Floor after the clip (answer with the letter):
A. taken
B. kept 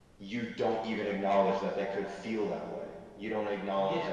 A